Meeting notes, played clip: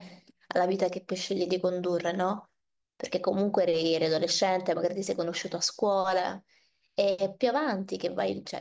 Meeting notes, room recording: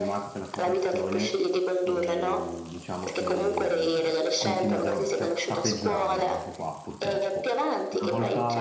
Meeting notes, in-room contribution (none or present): present